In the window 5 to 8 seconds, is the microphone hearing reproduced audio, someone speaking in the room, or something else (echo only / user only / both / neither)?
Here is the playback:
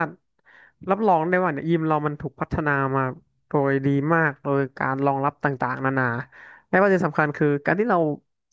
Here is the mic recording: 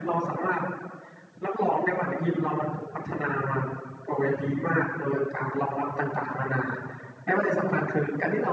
echo only